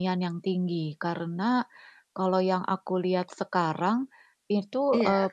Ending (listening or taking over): listening